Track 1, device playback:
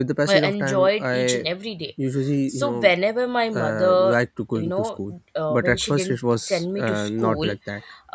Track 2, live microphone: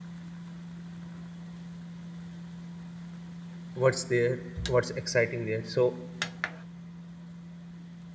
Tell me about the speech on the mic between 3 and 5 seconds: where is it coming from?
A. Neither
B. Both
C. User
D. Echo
C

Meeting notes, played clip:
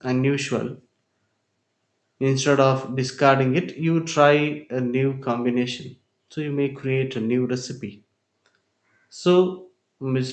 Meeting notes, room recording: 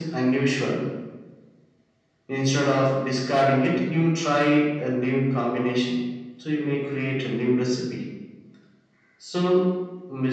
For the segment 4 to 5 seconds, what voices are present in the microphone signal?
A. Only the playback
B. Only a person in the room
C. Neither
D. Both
A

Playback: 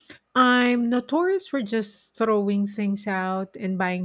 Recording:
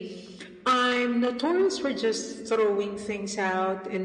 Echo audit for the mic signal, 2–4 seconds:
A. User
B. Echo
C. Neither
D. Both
B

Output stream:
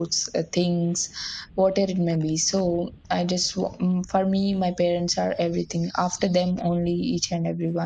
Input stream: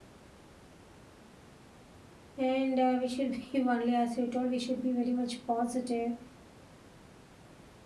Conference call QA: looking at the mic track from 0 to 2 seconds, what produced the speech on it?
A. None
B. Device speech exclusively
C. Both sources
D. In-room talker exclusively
A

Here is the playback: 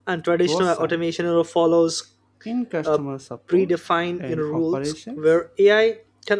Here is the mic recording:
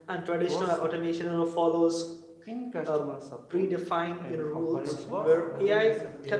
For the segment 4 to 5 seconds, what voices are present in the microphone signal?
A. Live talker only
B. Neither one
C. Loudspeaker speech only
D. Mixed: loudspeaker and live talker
D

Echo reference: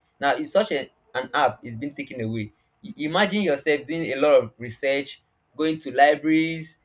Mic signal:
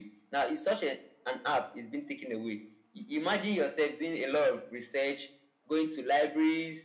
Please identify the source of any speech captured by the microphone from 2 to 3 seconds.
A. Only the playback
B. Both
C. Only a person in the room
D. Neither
A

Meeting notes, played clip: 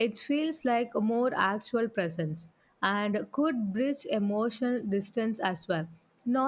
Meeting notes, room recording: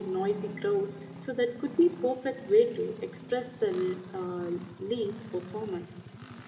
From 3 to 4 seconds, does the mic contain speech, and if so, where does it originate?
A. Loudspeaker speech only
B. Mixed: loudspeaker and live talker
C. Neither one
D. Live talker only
D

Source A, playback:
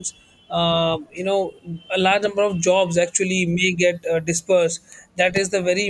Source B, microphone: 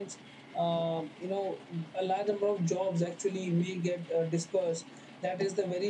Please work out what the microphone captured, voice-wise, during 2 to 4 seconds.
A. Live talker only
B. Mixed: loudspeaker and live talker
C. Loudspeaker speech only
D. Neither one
C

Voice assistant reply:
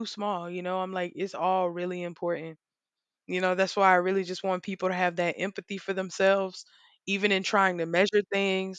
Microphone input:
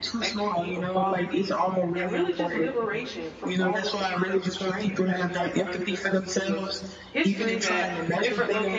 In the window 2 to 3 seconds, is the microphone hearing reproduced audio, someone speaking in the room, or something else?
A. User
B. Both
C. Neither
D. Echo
B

